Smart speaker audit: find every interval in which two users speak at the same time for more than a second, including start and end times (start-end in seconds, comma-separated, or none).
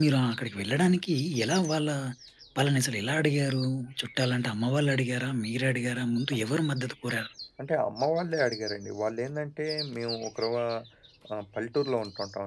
none